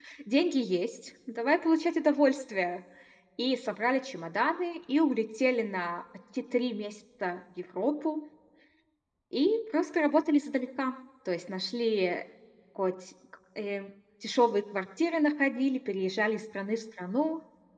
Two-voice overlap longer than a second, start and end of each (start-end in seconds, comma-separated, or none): none